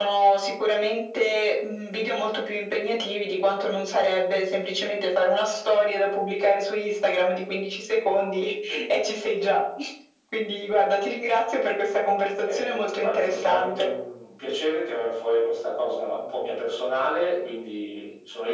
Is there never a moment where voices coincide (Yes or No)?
No